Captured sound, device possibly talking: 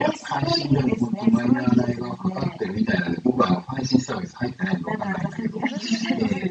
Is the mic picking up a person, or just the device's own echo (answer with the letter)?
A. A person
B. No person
A